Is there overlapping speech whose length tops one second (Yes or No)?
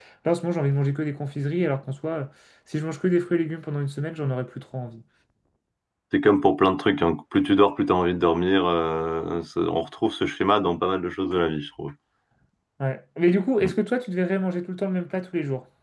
No